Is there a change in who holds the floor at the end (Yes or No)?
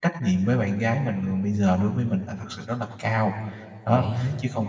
No